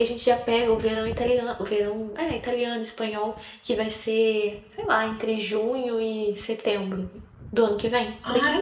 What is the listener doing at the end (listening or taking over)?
taking over